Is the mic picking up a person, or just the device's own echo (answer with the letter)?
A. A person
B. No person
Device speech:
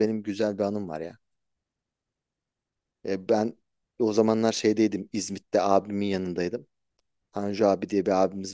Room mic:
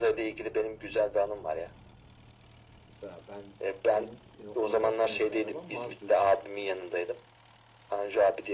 A